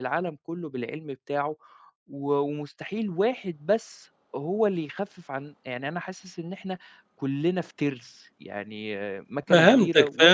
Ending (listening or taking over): taking over